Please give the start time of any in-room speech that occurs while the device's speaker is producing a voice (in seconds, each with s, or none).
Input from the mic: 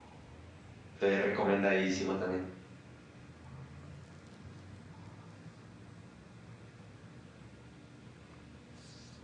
0.9 s